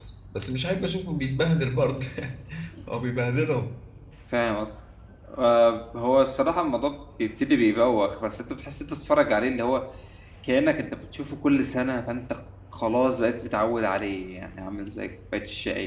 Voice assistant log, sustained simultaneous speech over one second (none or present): none